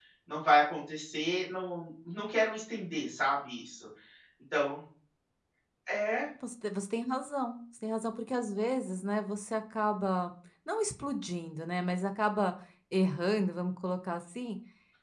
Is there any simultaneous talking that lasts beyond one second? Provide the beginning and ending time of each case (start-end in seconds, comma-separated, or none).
none